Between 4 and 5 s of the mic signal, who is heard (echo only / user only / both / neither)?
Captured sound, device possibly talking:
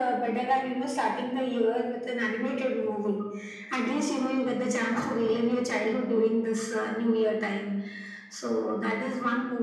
echo only